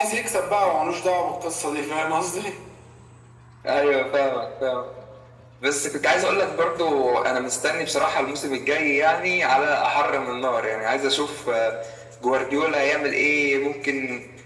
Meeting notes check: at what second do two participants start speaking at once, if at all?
none

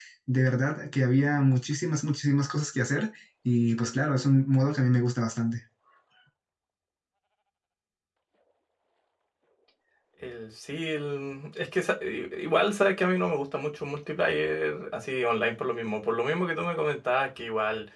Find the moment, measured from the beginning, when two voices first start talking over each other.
none

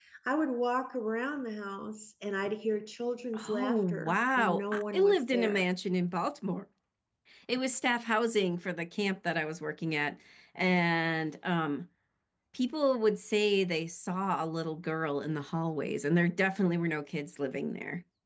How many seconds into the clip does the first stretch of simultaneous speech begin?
3.3 s

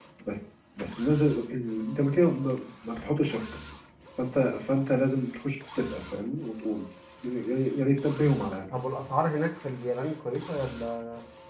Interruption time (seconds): none

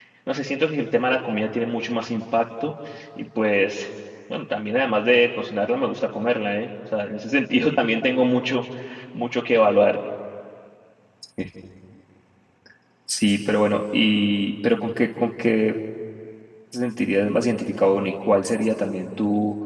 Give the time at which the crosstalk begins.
none

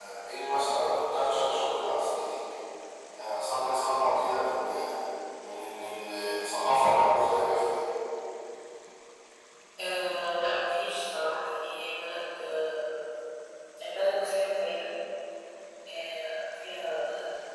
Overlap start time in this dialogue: none

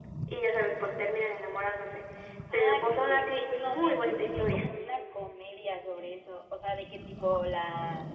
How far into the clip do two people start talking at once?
2.5 s

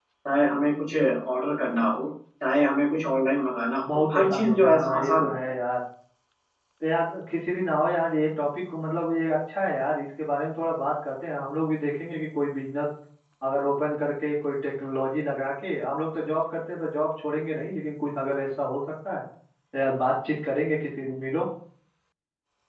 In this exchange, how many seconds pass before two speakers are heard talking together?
4.1 s

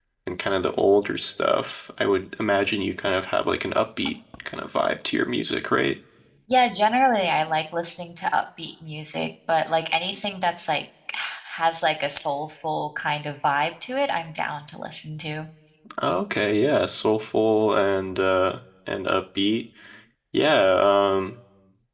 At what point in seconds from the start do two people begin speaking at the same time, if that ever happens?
none

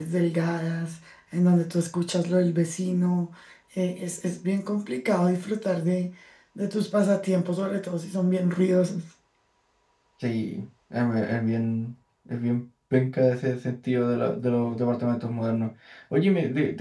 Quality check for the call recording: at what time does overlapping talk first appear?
none

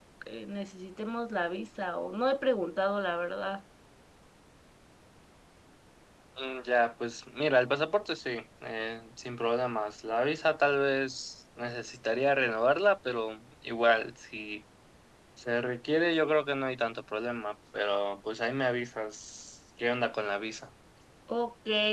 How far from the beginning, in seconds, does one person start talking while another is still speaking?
none

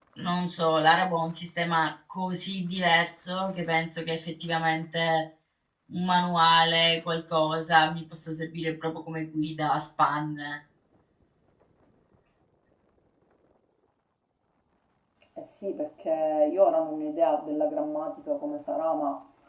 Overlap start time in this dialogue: none

